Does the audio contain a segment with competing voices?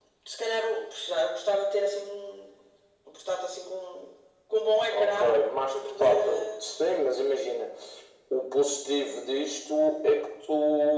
Yes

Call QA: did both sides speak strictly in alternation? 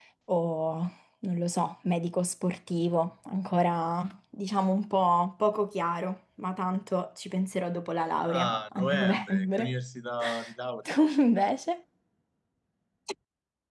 No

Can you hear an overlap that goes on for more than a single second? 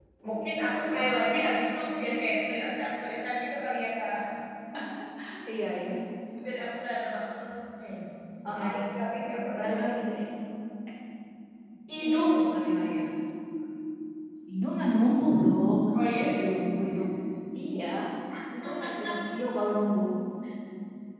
No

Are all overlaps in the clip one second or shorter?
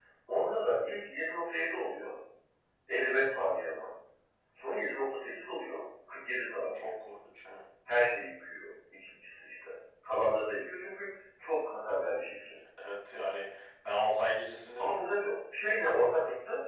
Yes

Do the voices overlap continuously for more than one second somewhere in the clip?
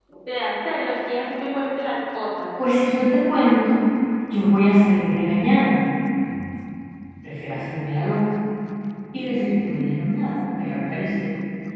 No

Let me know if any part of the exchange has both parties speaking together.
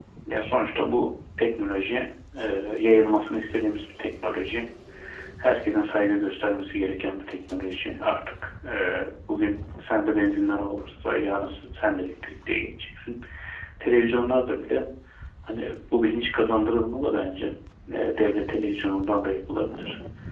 No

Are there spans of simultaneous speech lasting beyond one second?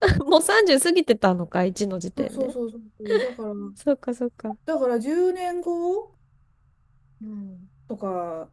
No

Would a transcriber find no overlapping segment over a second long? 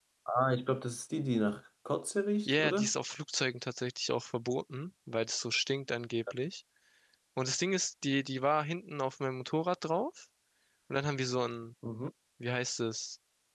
Yes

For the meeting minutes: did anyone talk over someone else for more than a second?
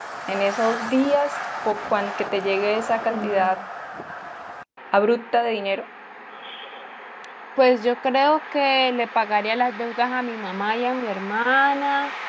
No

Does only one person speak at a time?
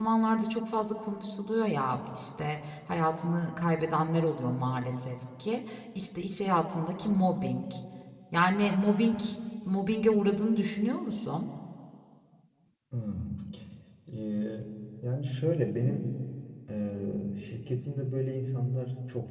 Yes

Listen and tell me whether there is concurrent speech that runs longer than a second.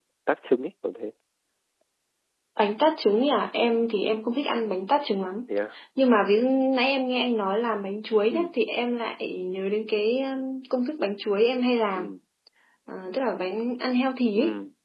No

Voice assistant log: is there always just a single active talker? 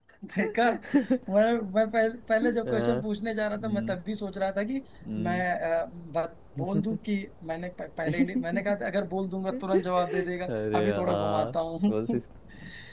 No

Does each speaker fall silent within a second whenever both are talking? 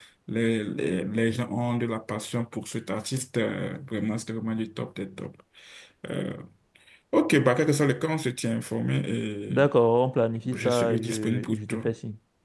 No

